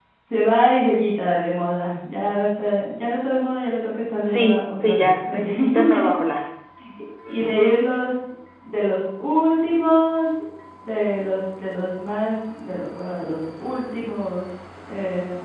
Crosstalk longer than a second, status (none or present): present